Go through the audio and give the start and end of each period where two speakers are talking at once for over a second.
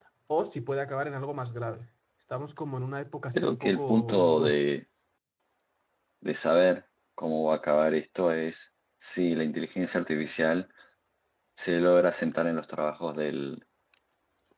3.3-4.6

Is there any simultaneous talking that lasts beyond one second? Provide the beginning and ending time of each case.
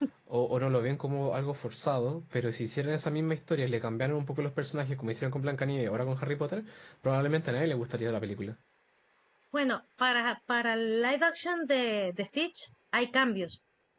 none

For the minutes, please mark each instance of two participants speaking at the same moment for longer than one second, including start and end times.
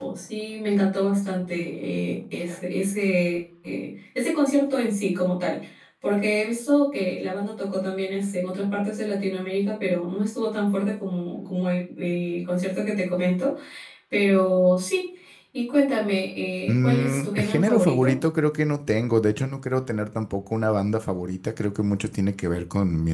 16.7-18.2

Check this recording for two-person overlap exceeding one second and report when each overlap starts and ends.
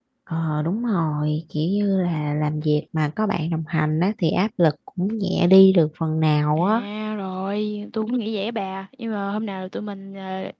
none

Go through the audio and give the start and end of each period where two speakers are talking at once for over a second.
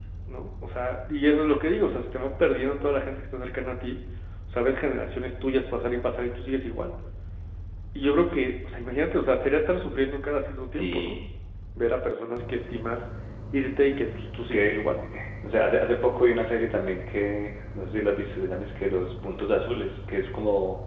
none

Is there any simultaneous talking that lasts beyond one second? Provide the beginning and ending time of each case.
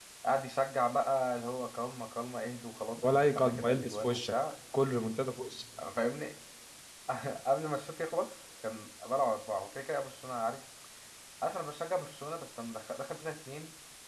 3.0-4.3

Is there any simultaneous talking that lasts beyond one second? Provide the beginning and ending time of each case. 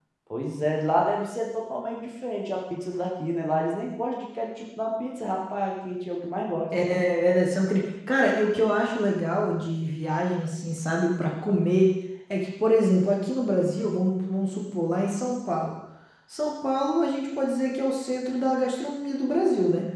none

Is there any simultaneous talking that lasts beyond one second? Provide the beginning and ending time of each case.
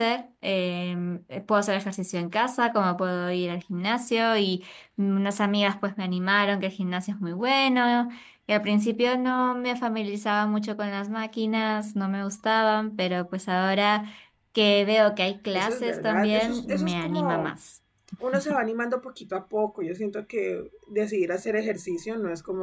15.5-17.5

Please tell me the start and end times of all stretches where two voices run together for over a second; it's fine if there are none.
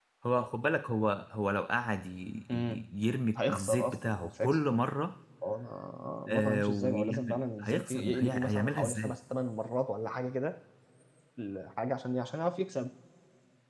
3.4-4.6, 6.3-9.2

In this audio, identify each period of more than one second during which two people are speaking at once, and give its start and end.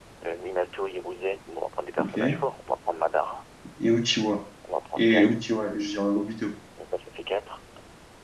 none

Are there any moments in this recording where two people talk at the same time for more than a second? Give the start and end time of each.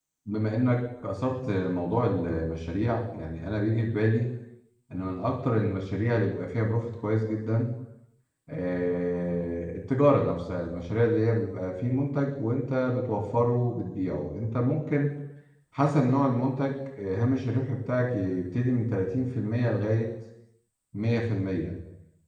none

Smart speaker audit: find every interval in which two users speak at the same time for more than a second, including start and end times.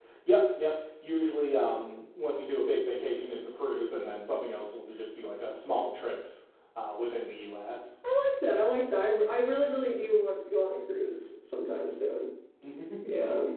none

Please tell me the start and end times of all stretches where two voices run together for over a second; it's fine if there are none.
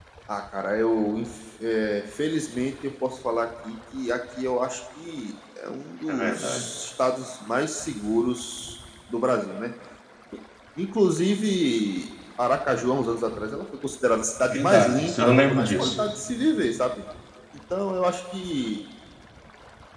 14.5-16.0

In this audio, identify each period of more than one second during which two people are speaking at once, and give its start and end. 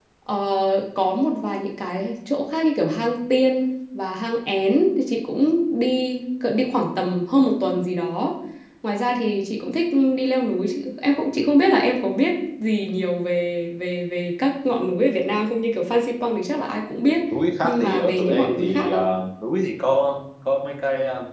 17.6-19.0

